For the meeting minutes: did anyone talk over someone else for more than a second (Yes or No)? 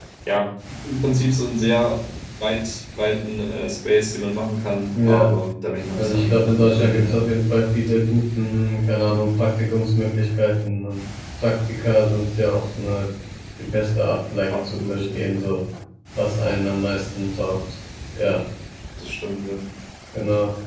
Yes